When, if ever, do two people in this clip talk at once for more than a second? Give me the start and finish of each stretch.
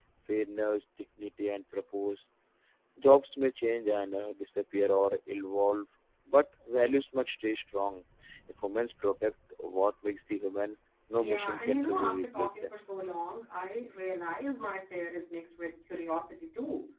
11.2-12.7

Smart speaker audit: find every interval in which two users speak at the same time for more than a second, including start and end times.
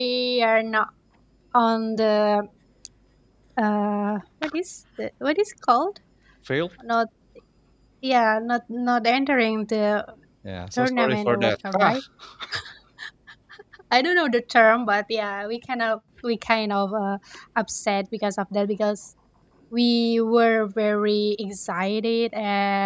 10.8-12.0

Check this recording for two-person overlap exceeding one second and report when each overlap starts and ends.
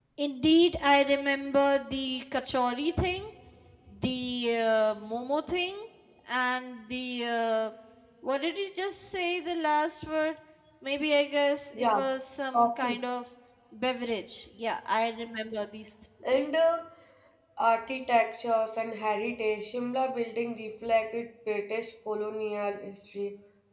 none

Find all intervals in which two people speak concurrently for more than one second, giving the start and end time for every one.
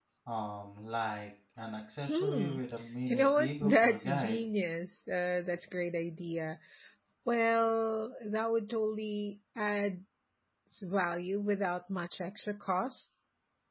3.1-4.4

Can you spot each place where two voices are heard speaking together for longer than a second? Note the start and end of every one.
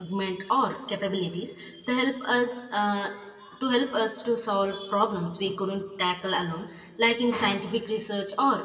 none

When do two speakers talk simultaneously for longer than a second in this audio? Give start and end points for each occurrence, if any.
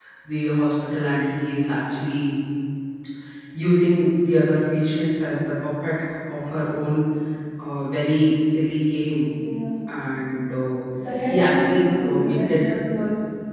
11.3-12.6

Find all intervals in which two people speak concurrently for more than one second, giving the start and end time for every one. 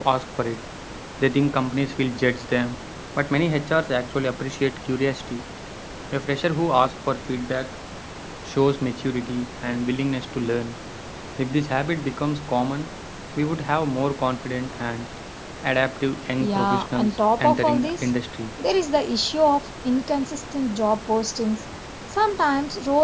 16.4-18.1

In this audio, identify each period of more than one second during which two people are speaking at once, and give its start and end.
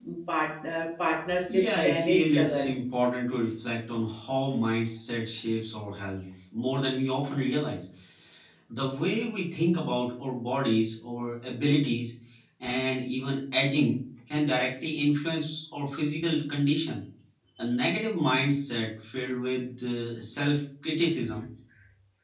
1.5-2.7

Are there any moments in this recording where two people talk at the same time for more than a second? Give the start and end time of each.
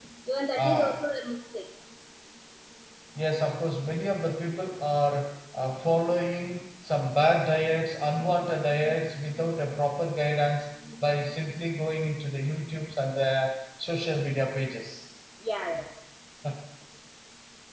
none

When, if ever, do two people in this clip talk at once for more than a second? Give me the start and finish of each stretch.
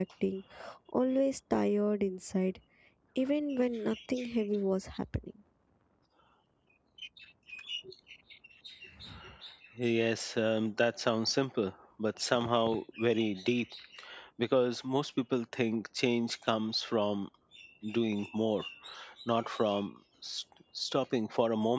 none

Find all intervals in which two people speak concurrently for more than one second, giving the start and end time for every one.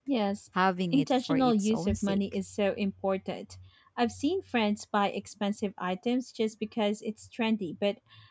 0.9-2.2

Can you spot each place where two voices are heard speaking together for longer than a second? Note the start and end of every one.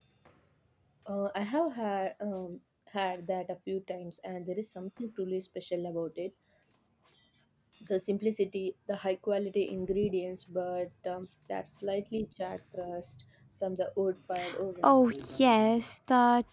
none

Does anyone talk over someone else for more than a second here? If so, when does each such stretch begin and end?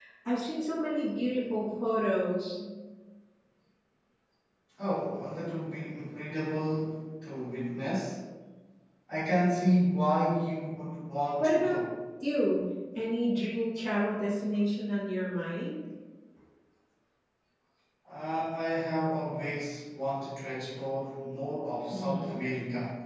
none

